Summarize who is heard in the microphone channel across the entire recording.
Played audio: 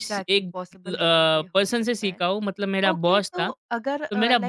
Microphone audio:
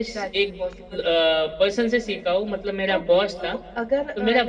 echo only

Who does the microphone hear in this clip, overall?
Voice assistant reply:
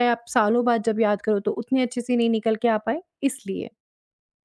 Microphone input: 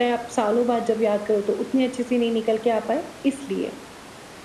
echo only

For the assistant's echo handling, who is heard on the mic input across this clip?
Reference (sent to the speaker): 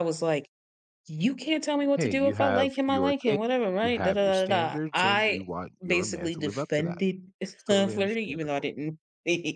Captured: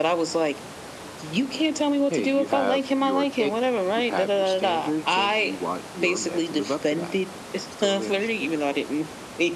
echo only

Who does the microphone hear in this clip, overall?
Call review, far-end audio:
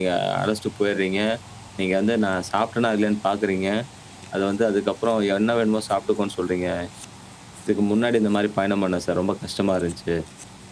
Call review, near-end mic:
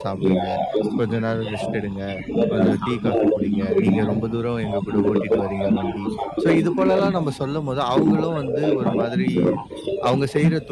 both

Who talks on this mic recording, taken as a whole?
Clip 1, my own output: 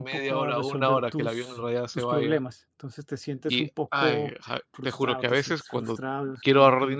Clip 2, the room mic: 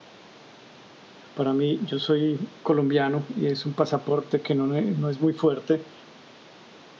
user only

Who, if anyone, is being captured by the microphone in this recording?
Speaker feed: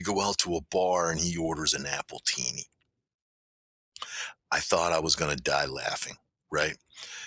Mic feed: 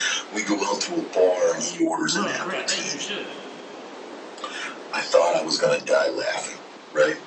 both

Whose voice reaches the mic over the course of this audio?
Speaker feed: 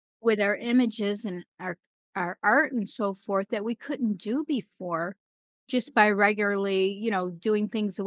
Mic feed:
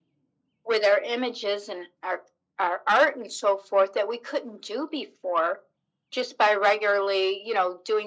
echo only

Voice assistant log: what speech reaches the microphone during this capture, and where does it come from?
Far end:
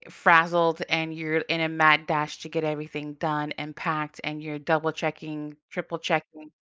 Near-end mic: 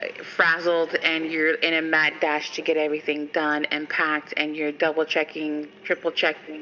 echo only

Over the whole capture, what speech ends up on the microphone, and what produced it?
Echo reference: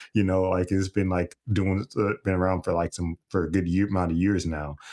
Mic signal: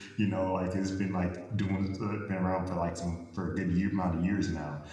echo only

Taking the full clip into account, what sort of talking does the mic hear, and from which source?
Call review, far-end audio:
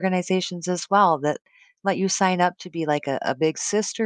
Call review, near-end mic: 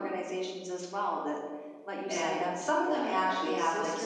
both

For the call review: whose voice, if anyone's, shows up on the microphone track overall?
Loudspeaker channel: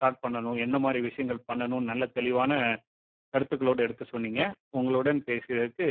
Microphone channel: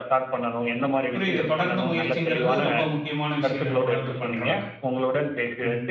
both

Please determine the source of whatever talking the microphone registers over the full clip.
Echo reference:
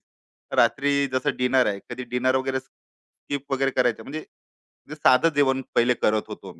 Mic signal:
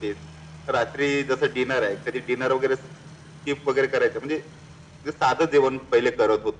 echo only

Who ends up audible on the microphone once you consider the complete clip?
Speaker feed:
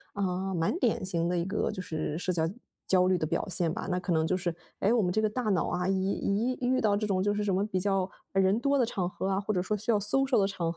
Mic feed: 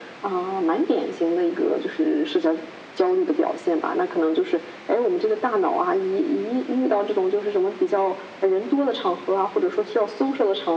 echo only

